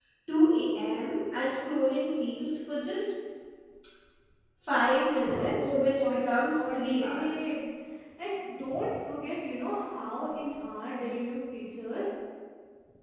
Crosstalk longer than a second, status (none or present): present